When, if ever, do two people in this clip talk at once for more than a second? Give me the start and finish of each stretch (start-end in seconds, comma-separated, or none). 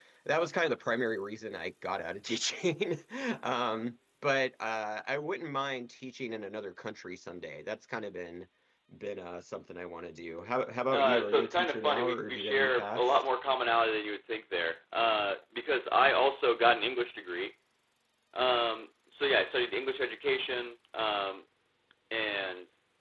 10.9-13.0